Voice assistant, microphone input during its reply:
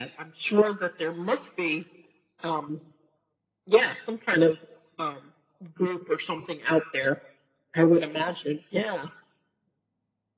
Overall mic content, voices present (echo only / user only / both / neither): echo only